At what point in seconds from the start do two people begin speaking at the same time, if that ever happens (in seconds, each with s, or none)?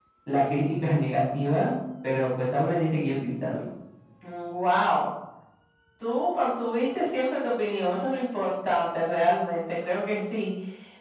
none